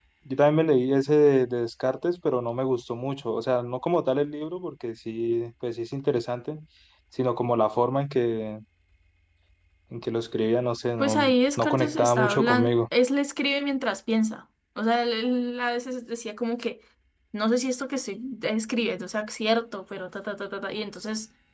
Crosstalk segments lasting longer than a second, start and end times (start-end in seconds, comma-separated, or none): 11.0-12.7